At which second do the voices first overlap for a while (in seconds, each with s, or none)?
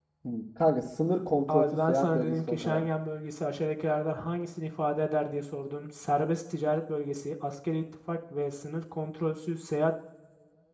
1.5 s